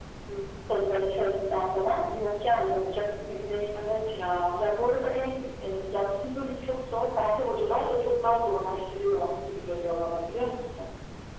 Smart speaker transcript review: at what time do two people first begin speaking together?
none

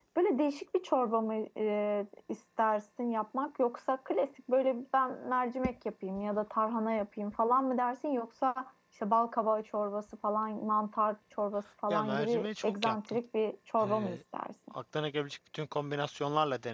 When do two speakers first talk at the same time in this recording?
12 s

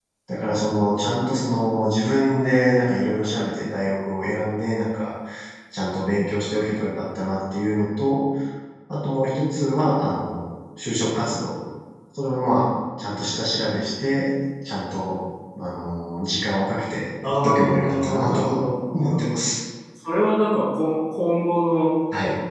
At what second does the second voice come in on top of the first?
17 s

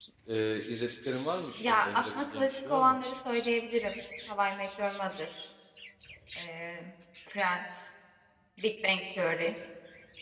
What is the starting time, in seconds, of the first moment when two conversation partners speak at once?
2 s

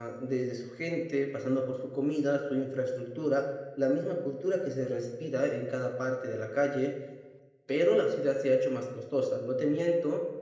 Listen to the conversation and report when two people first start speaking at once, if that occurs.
none

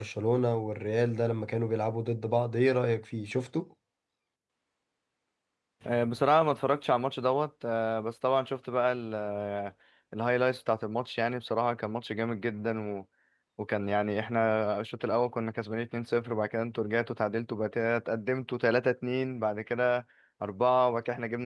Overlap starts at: none

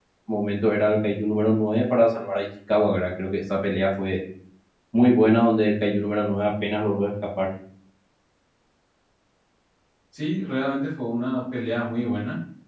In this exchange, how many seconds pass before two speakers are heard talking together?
none

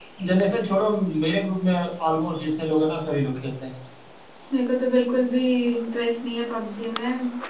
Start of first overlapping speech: none

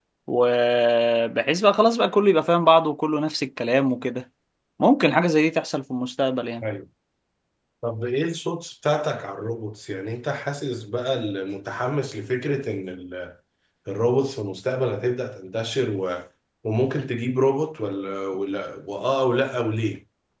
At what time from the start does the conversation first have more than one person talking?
none

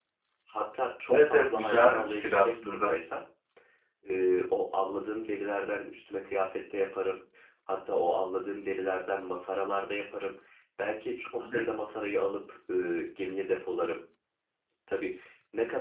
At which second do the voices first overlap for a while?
1 s

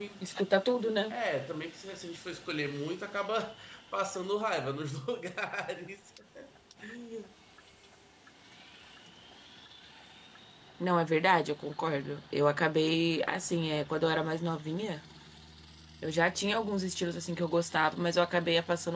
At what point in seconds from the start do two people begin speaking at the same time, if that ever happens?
none

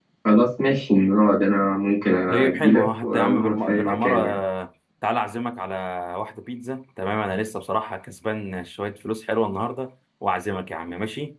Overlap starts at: 2 s

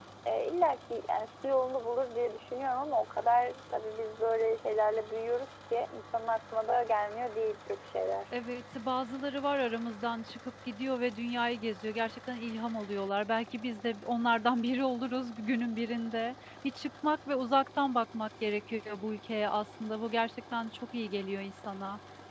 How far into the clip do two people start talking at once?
none

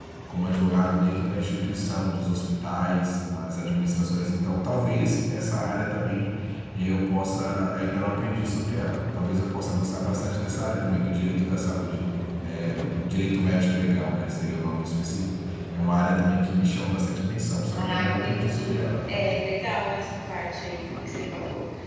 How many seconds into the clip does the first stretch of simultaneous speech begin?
18 s

